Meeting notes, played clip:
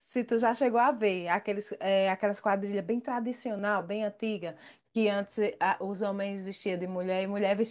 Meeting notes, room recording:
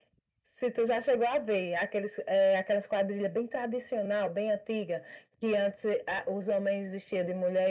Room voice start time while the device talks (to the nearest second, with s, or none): none